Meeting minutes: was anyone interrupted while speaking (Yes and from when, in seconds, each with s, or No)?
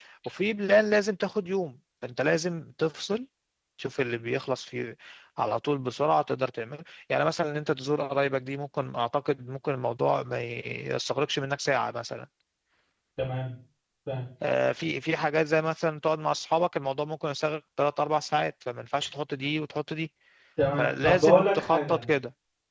Yes, from 20.8 s